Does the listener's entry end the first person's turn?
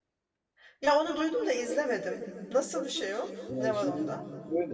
Yes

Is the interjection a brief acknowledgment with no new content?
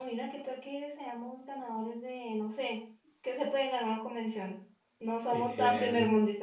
Yes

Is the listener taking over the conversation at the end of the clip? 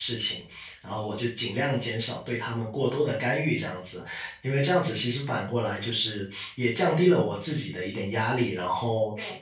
No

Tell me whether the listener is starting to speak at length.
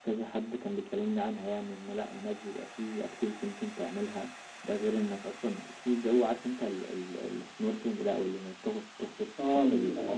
Yes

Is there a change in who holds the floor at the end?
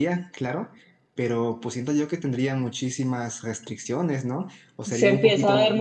Yes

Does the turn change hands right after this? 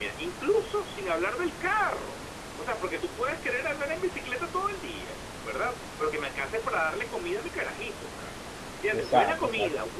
No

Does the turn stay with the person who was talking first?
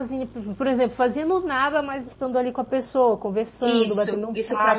No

